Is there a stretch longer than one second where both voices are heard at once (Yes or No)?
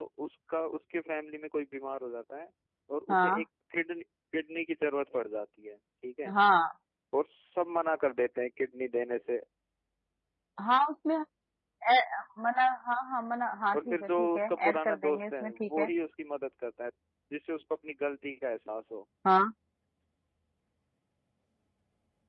Yes